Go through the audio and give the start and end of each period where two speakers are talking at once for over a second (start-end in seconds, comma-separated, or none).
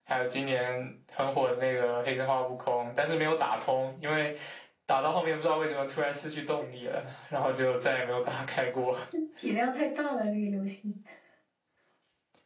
none